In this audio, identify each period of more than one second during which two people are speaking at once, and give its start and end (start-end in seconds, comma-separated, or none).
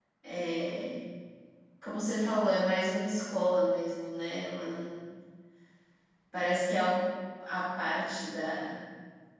none